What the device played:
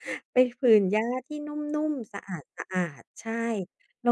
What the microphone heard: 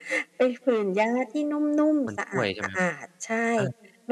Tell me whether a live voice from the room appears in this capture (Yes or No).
Yes